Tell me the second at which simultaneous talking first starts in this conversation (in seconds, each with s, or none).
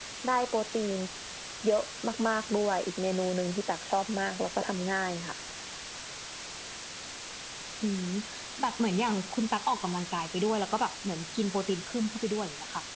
none